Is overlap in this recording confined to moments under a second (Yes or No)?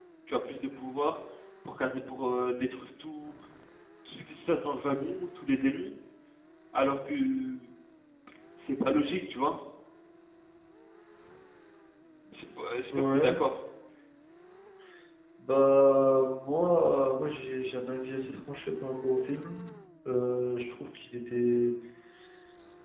Yes